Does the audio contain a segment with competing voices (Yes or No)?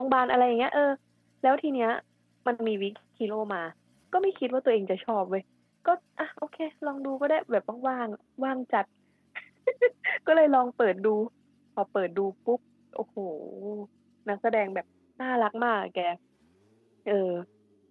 No